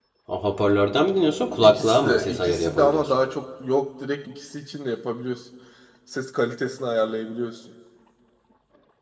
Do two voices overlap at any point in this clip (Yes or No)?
Yes